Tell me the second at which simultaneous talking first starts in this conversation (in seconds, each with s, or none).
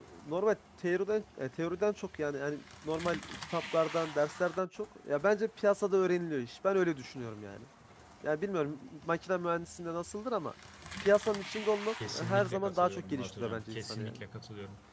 12.0 s